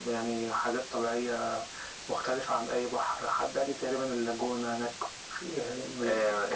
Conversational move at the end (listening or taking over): taking over